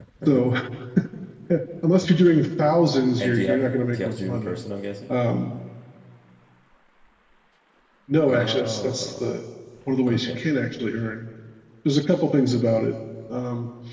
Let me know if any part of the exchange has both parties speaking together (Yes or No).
Yes